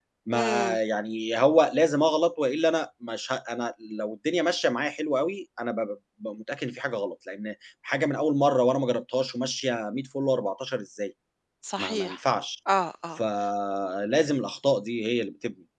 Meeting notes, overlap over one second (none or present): none